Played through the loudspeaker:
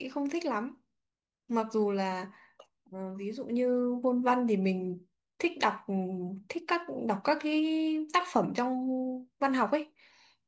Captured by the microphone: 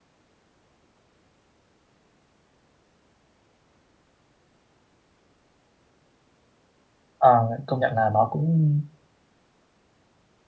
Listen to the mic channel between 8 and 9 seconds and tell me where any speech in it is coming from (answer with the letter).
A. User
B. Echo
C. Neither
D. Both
A